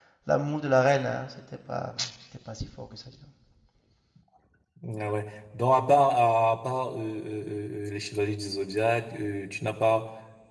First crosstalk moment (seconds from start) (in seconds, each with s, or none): none